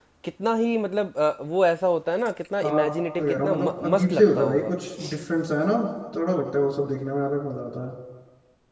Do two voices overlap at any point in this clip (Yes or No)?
Yes